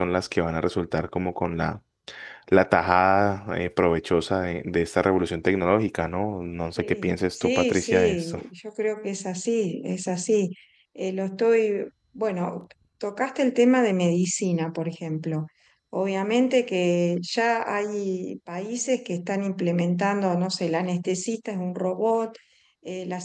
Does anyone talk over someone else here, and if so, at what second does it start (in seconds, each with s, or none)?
6.8 s